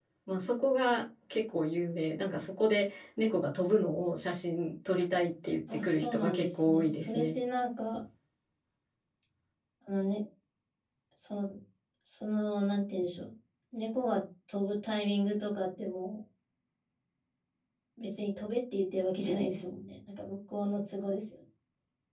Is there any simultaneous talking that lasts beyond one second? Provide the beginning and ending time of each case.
5.7-7.3

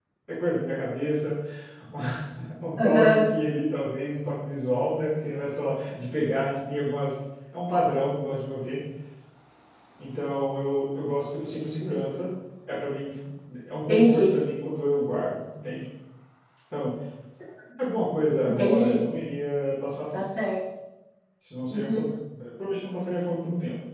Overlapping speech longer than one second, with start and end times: none

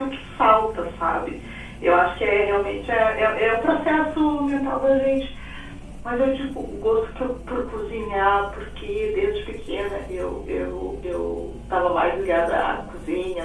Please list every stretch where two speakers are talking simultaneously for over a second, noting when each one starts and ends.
none

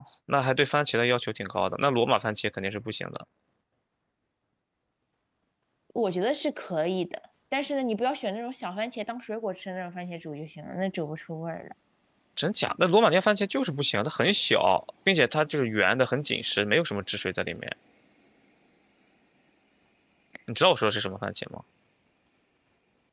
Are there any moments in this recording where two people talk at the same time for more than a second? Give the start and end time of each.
none

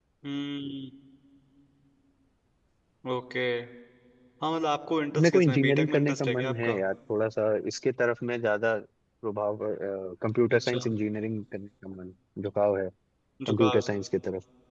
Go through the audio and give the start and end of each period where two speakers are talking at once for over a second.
5.1-6.8

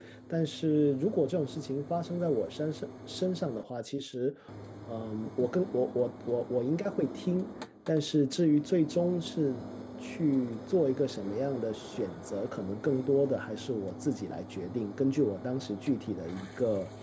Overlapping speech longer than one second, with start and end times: none

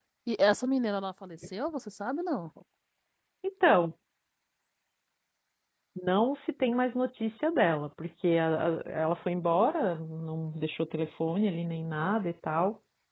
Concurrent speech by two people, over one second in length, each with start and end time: none

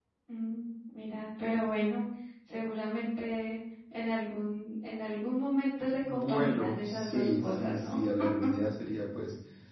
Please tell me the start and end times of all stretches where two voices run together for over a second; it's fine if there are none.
6.1-8.0

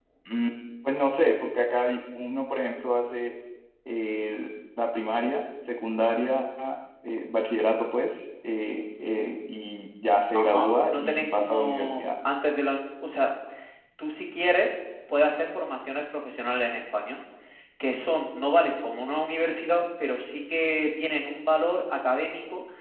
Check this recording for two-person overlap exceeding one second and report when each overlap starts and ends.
10.3-12.0

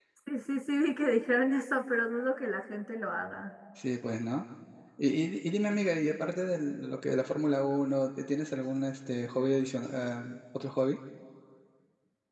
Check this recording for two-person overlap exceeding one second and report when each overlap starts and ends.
none

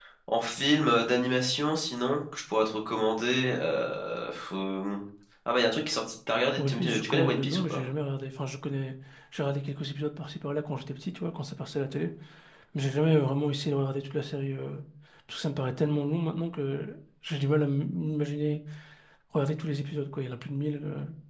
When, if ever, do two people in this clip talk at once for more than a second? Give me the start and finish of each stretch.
6.6-7.8

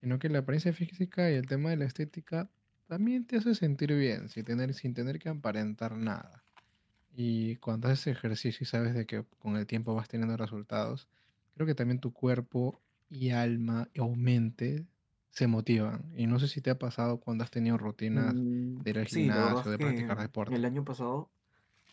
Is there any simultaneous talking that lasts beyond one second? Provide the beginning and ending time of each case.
18.8-20.5

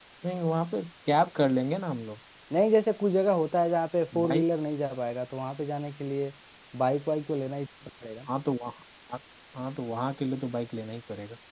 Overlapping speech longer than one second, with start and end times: none

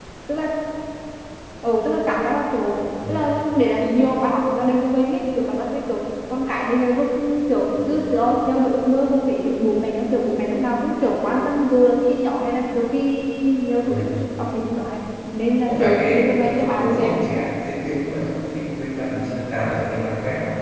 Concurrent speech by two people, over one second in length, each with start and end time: 15.6-17.1

